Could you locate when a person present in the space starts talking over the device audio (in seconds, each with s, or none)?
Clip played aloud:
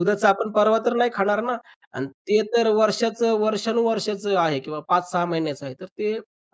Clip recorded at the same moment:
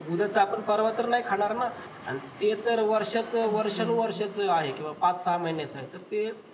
3.4 s